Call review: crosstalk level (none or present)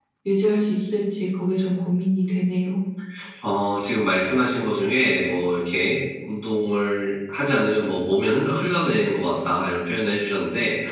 none